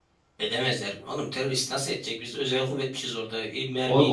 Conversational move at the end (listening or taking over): taking over